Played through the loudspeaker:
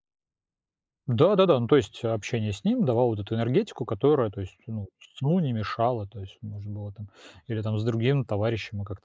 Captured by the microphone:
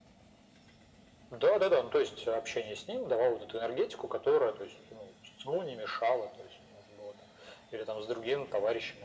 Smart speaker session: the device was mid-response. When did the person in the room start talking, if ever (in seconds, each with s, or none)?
none